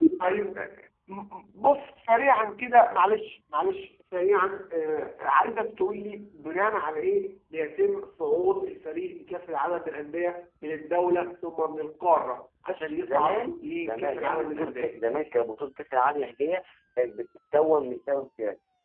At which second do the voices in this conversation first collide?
13 s

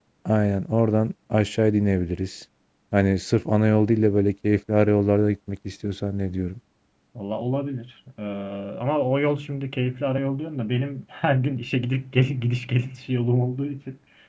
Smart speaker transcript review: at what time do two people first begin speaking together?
none

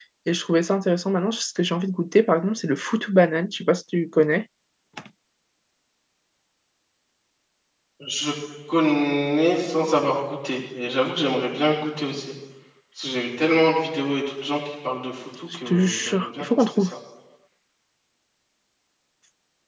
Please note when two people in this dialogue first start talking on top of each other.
16 s

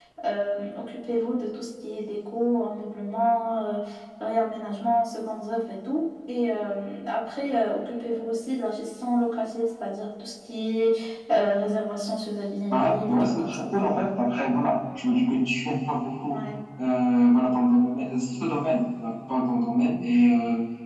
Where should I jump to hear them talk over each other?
13 s

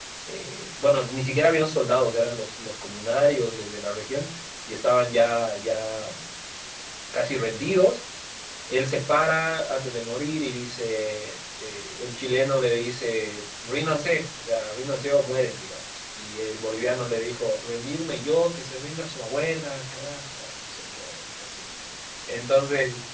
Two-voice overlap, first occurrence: none

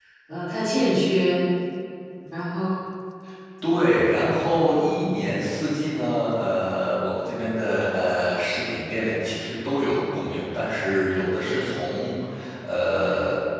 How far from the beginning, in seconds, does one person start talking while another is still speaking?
none

